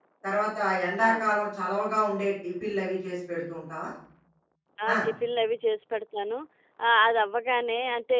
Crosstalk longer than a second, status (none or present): none